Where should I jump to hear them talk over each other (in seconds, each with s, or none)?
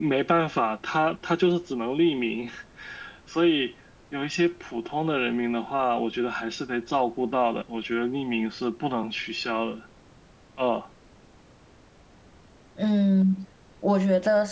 none